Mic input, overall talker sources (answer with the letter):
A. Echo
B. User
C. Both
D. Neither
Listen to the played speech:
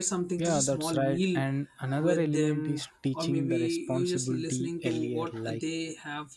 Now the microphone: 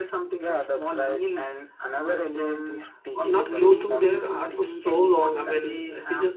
C